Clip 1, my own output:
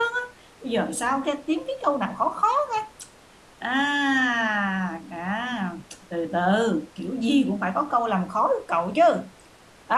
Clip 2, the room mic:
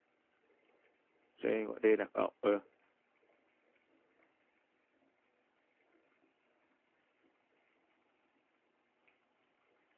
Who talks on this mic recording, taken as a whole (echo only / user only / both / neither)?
user only